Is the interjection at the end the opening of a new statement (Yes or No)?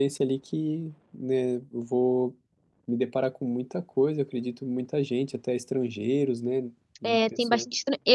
Yes